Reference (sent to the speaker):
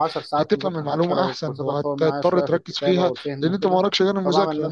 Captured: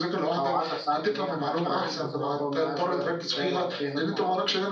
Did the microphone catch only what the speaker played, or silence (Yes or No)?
No